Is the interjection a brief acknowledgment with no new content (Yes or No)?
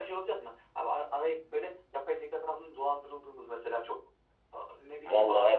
No